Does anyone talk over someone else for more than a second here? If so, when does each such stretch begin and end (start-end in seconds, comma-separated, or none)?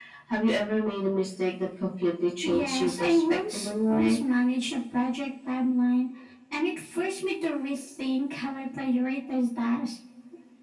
2.4-4.2